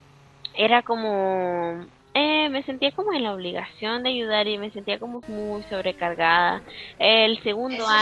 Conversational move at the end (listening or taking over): taking over